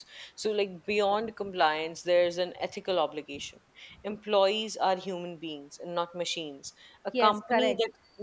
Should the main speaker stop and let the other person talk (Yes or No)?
No